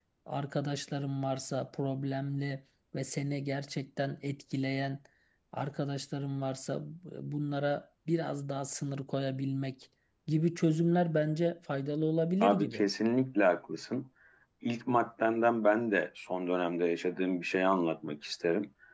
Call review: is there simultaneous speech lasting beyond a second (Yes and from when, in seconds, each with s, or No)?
No